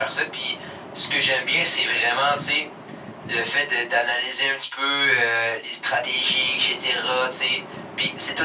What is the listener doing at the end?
listening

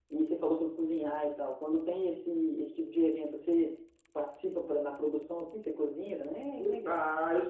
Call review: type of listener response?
taking over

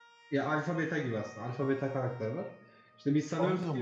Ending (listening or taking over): listening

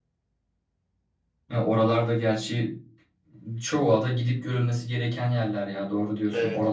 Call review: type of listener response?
taking over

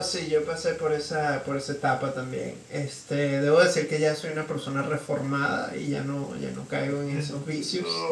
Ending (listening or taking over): taking over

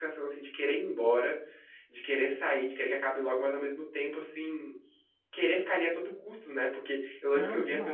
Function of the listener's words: listening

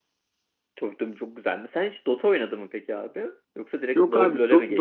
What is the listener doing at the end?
taking over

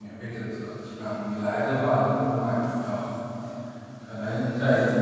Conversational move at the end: listening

